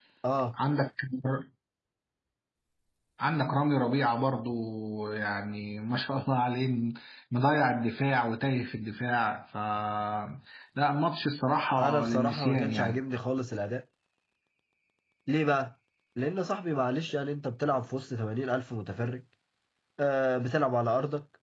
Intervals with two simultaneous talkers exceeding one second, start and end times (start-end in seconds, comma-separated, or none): 11.8-13.0